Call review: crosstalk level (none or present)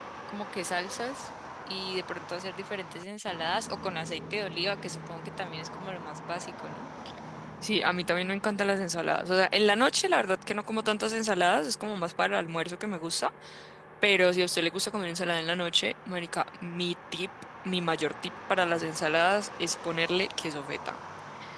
none